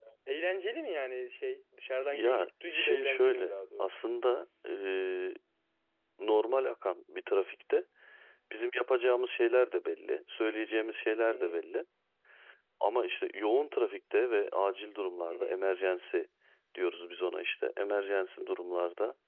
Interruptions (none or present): present